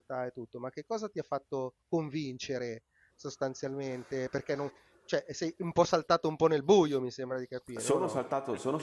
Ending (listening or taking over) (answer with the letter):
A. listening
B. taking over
B